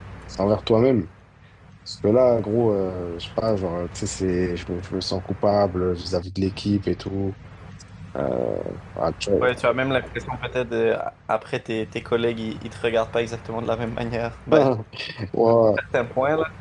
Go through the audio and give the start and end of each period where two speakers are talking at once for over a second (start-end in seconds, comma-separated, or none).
none